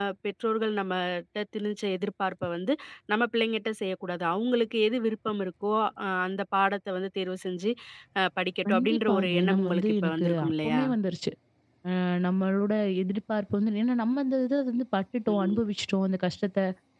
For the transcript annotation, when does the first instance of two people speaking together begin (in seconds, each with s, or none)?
8.7 s